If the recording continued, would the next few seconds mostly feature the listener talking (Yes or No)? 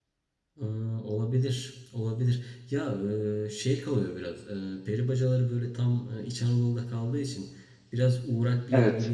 No